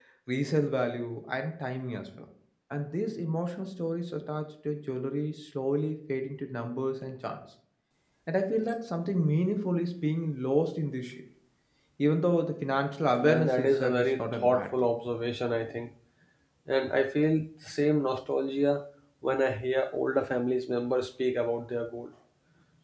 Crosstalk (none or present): present